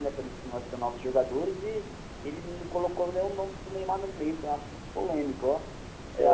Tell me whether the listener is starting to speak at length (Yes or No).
Yes